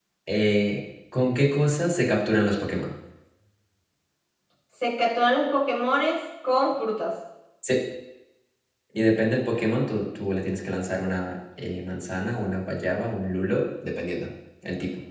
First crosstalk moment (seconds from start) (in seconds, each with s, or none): none